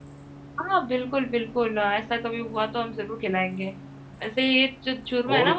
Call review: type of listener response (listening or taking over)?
listening